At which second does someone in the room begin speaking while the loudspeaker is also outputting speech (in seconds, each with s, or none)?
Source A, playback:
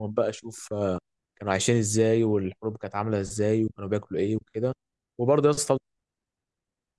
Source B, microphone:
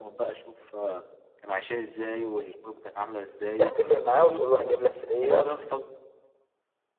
3.6 s